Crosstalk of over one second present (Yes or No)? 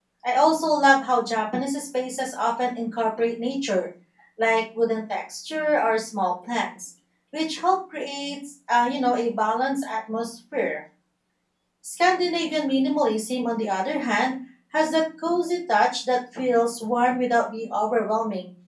No